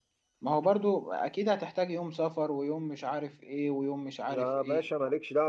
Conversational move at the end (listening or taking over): taking over